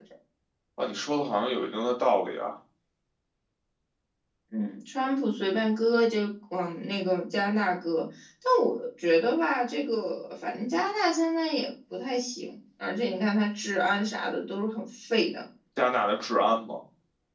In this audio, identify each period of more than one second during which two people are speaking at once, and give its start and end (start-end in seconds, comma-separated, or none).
none